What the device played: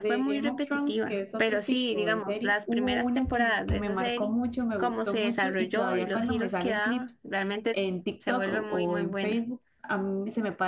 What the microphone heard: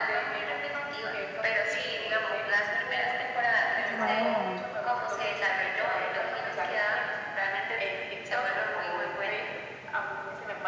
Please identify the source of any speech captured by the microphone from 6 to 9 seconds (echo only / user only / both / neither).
echo only